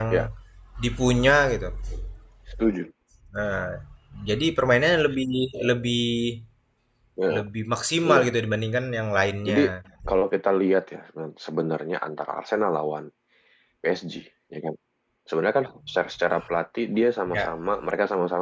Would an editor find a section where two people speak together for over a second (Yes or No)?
No